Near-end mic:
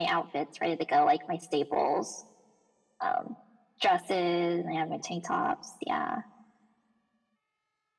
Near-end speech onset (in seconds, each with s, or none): none